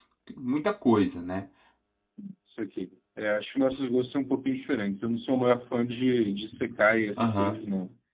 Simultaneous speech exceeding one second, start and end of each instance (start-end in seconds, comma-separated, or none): none